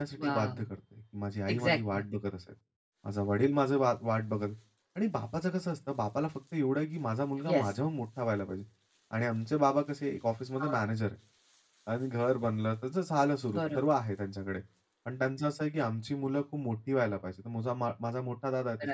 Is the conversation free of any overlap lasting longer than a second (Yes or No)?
Yes